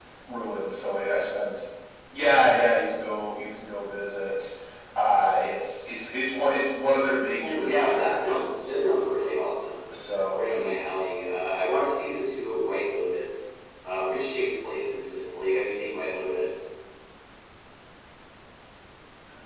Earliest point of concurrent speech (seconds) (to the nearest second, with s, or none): 7 s